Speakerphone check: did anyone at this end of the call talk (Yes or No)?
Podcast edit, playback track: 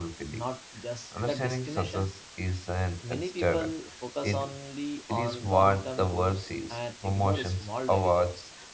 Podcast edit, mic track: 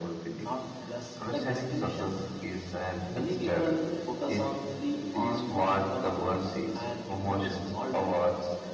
No